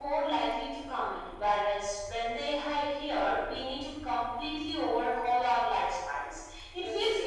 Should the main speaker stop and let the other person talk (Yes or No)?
No